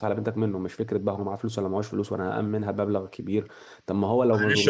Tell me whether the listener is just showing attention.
No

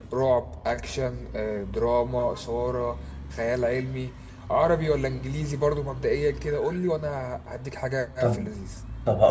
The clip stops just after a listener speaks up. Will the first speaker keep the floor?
No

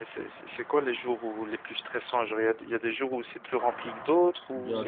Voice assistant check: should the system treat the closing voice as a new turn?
Yes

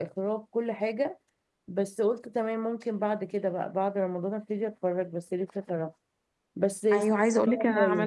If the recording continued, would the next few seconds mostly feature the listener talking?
Yes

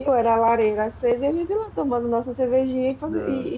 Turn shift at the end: No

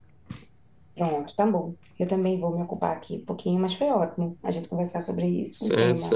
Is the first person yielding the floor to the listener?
Yes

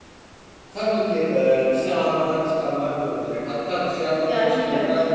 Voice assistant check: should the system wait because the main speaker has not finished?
Yes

